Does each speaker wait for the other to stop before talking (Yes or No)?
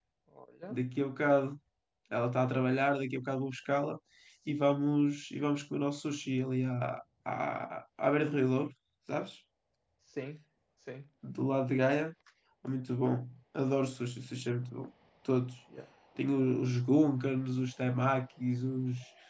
Yes